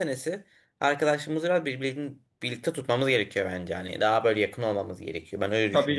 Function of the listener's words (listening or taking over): taking over